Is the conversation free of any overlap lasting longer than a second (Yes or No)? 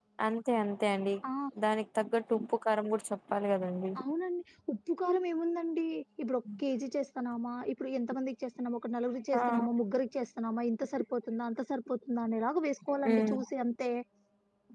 Yes